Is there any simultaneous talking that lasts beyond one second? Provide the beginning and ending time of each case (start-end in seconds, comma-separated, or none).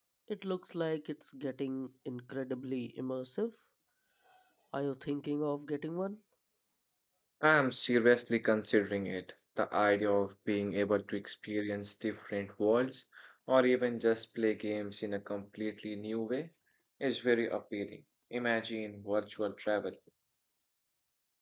none